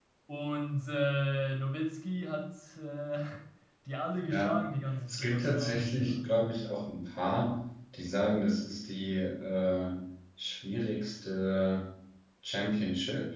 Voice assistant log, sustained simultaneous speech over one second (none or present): present